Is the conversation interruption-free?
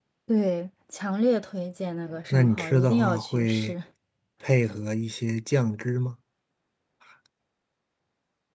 No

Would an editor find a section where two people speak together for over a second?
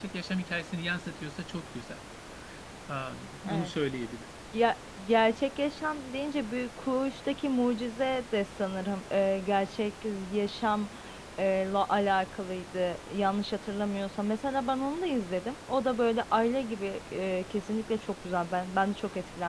No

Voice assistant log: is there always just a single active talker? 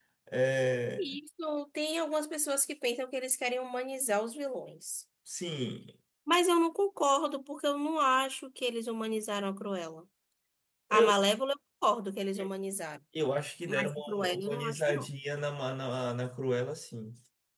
No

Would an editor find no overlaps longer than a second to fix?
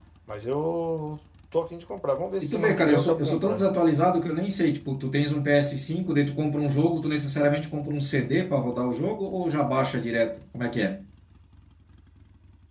No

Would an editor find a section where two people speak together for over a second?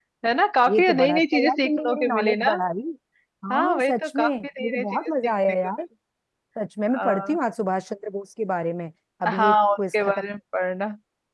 Yes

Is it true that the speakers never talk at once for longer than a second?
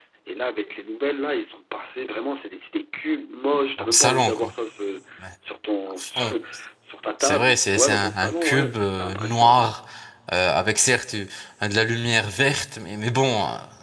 No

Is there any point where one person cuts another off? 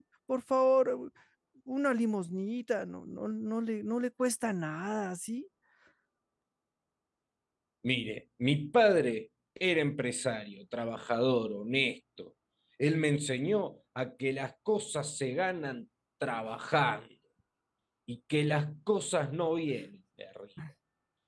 No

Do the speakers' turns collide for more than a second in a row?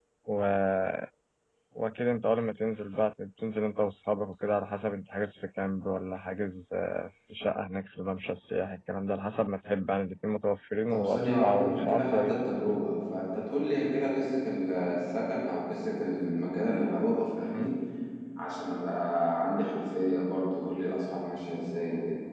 Yes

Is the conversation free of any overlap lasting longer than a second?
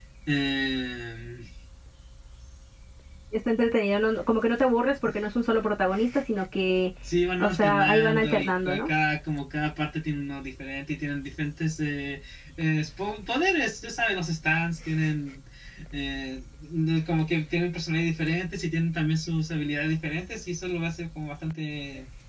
No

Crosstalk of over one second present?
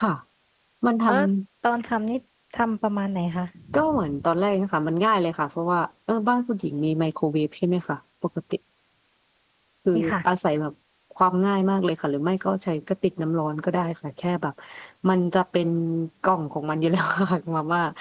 No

